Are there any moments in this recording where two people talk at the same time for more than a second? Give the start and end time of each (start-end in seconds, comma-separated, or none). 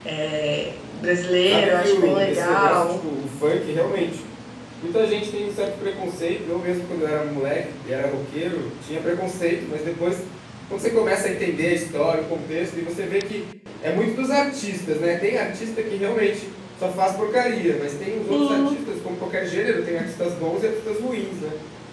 1.4-2.9